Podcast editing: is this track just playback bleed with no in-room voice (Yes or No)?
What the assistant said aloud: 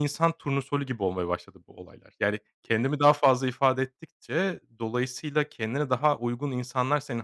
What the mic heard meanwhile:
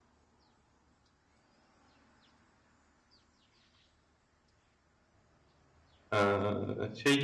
No